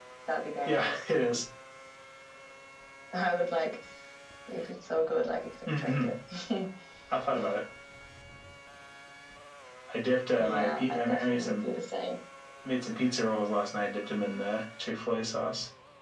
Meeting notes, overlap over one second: present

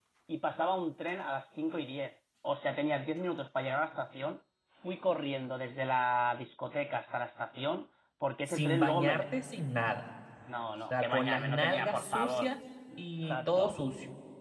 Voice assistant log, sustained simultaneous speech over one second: present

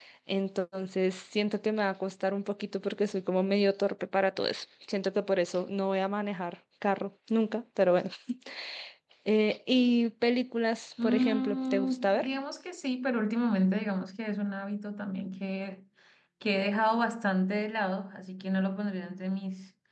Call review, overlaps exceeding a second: present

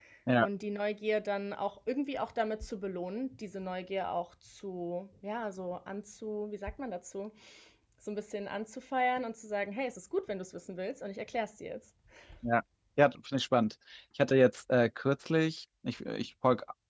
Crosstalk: none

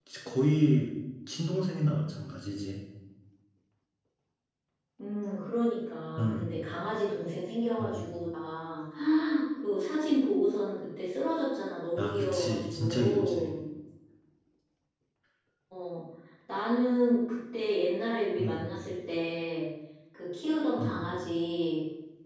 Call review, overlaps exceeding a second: present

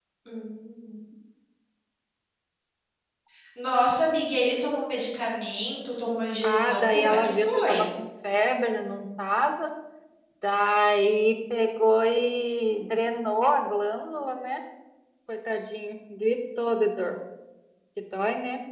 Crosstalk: present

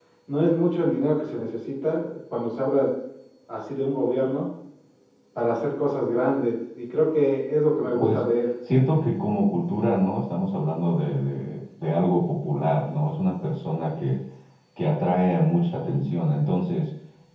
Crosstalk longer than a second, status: none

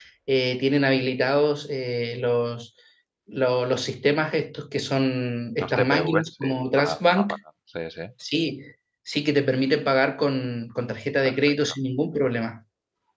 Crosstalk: present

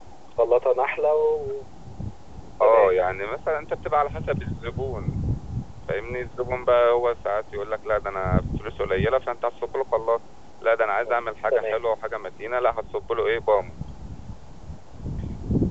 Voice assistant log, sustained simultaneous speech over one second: none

